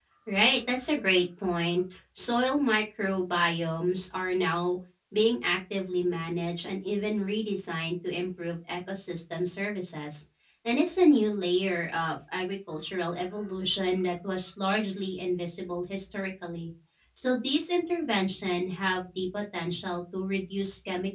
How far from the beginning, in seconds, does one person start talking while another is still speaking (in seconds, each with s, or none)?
none